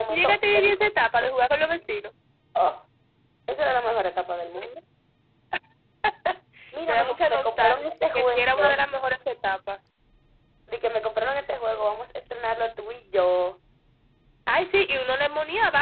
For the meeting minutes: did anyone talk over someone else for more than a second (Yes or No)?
Yes